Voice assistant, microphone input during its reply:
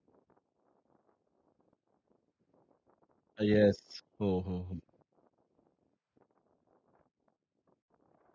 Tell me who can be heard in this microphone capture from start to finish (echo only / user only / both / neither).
user only